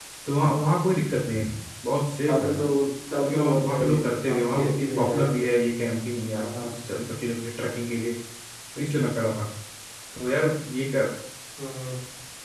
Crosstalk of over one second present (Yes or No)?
Yes